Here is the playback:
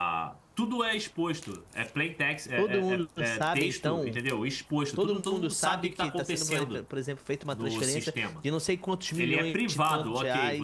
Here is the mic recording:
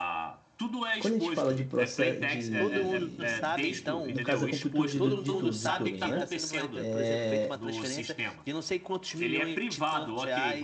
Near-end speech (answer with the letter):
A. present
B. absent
A